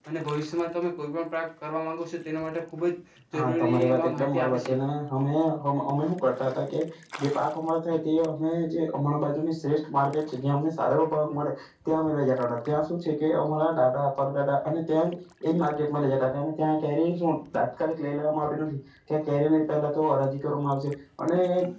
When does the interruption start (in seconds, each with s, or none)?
3.3 s